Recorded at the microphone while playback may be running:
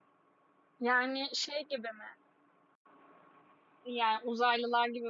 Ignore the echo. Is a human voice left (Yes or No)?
Yes